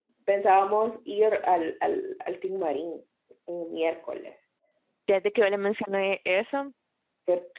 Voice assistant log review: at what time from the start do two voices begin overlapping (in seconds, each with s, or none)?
none